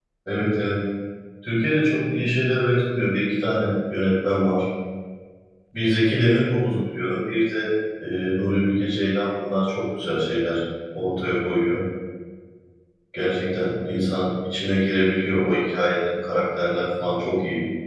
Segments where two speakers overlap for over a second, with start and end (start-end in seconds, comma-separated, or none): none